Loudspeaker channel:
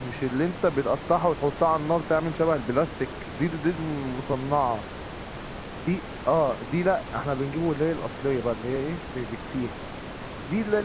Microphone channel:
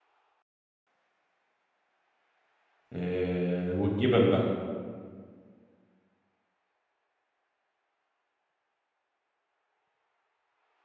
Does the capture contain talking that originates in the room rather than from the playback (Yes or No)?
Yes